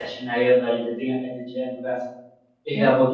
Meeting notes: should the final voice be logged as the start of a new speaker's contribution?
No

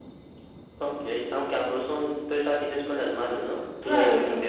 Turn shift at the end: Yes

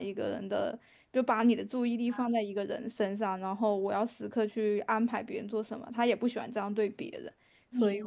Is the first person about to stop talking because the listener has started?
Yes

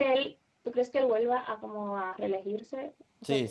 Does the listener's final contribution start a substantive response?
Yes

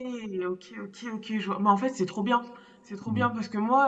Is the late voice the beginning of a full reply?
No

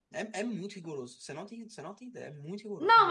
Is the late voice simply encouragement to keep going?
No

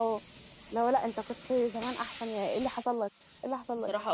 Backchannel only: No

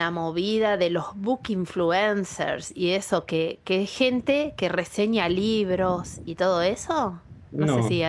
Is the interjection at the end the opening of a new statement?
No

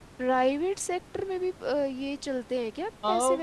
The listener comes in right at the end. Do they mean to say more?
Yes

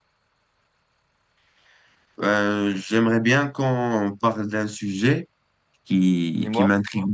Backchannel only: Yes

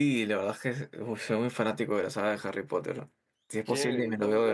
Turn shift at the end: Yes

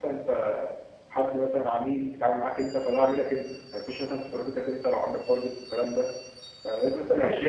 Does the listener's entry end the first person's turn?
Yes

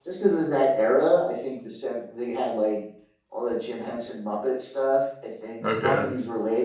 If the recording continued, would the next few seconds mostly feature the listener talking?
No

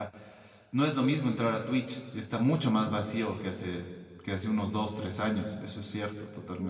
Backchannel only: No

